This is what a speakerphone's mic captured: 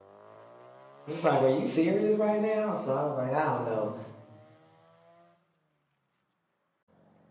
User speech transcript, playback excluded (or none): It's like, are you serious right now? So I was like, I don't know.